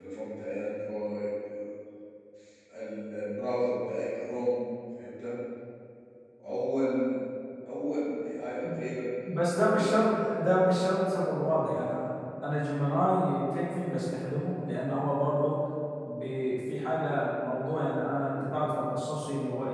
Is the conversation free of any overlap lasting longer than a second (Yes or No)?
Yes